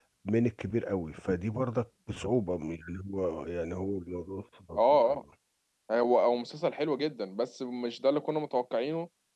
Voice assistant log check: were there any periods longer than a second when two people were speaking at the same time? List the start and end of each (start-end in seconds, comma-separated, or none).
none